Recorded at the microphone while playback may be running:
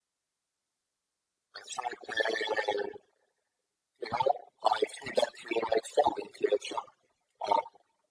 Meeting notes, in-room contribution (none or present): none